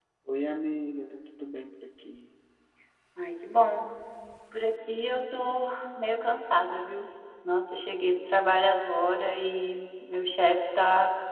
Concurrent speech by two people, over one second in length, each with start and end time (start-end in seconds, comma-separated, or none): none